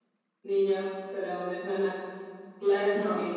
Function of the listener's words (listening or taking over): taking over